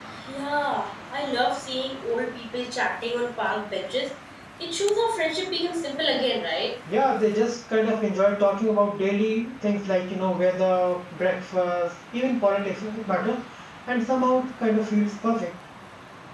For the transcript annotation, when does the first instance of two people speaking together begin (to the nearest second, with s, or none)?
none